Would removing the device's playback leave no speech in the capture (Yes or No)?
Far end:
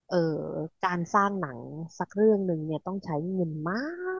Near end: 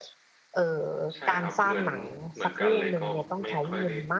No